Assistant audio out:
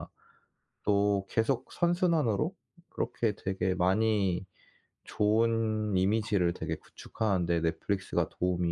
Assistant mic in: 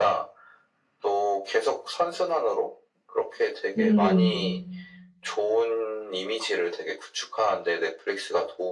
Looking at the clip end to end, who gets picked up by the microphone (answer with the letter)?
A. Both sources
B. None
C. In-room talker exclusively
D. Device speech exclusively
A